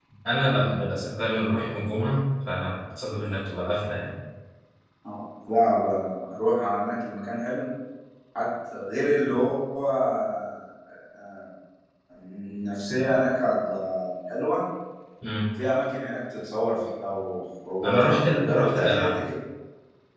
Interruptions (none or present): present